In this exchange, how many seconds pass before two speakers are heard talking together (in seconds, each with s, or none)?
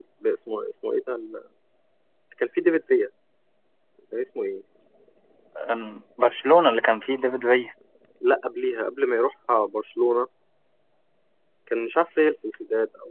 none